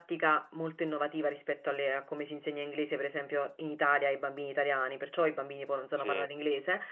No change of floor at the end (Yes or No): Yes